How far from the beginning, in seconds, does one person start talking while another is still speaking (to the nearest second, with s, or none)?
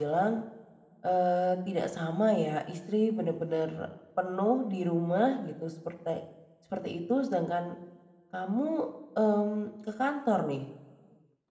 none